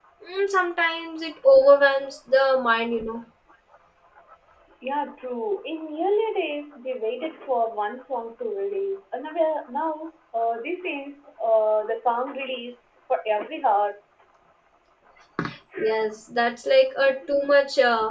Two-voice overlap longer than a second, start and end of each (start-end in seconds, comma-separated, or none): none